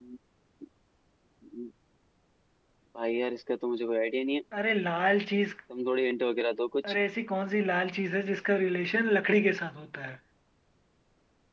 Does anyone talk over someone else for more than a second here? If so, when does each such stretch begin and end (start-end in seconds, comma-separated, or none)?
none